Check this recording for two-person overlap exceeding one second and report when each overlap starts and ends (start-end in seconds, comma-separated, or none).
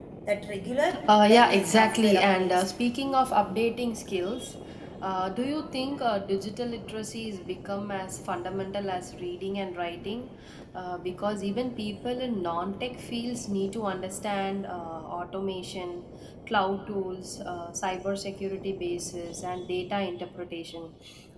1.1-2.7